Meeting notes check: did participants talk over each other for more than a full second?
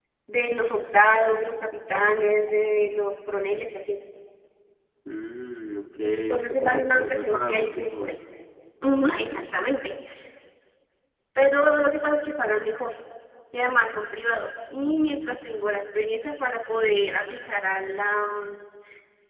Yes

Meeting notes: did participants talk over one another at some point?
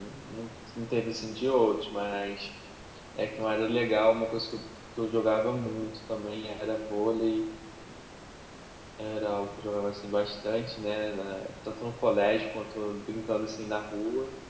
No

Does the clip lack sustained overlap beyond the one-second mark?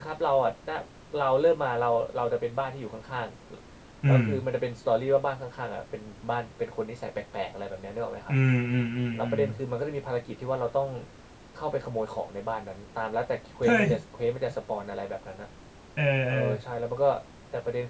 Yes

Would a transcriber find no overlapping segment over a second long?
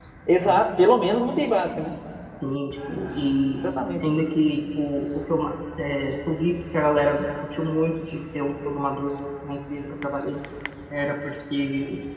Yes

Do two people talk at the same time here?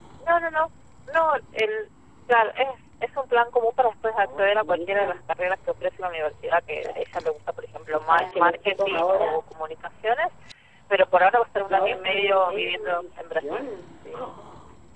Yes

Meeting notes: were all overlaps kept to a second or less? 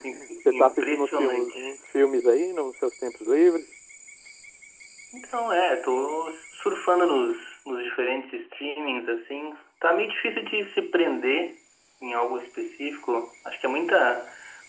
No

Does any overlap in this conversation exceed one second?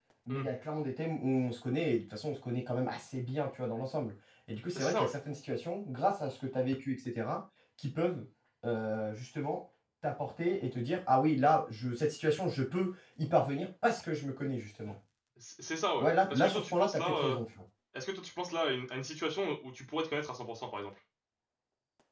Yes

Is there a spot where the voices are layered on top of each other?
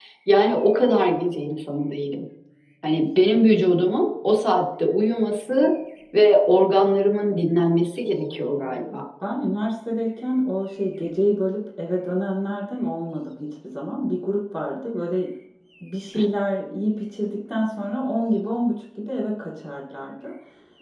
No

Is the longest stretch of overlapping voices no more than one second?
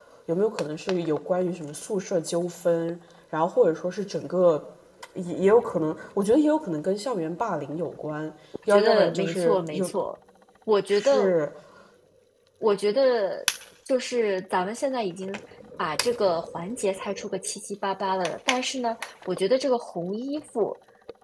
No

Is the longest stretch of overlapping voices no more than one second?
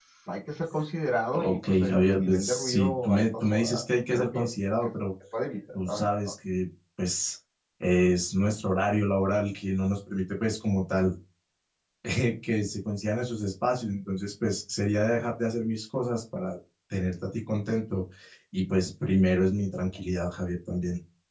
No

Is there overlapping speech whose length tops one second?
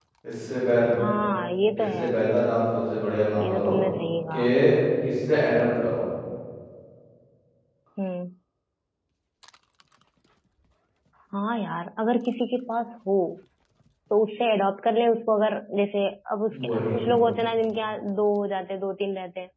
No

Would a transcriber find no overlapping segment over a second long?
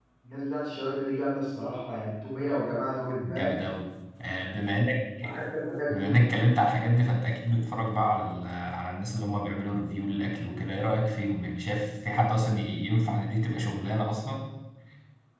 Yes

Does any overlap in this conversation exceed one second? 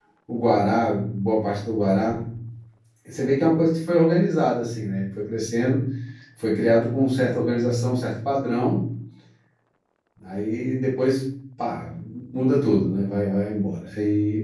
No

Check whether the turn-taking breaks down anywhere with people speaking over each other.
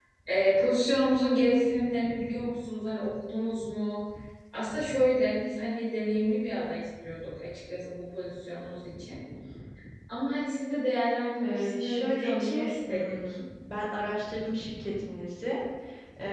Yes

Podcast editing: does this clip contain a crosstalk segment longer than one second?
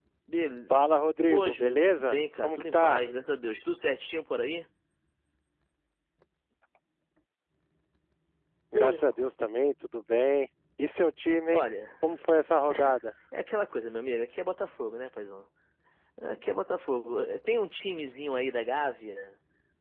Yes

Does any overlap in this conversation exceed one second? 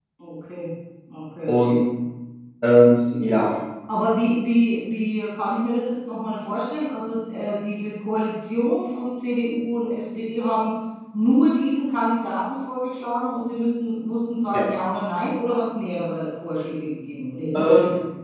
No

